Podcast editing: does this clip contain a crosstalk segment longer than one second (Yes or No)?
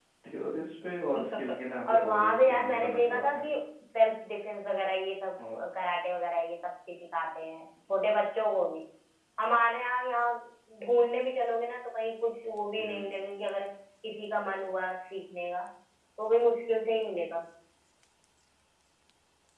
Yes